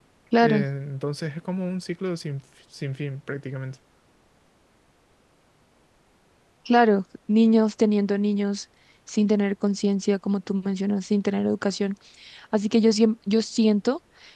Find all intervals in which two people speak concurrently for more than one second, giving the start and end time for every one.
none

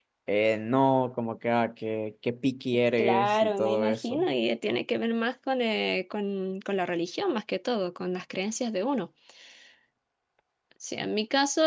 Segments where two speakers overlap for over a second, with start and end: 3.0-4.2

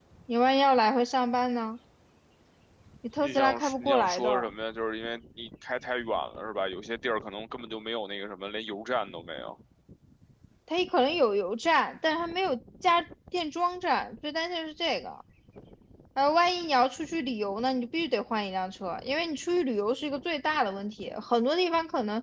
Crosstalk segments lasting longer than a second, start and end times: 3.2-4.5

